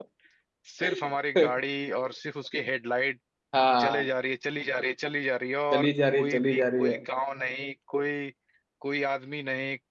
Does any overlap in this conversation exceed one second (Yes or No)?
Yes